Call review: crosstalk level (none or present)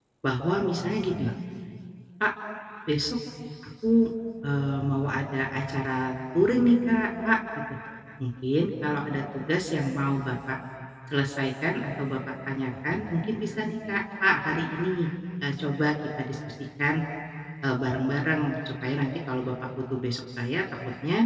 present